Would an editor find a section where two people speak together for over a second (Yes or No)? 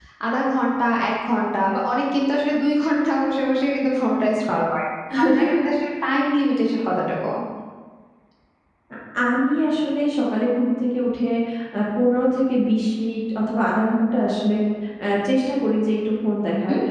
No